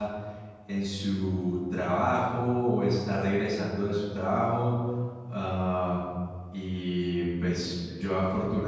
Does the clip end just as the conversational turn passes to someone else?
No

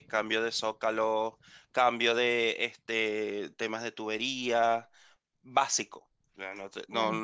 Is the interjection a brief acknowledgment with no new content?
Yes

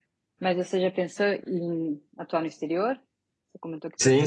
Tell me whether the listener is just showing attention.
No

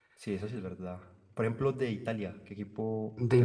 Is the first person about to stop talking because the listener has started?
Yes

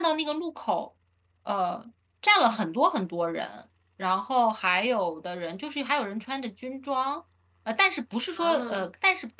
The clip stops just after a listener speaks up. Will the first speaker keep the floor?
Yes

